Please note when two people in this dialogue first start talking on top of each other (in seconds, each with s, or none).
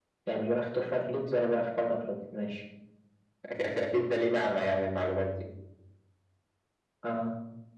none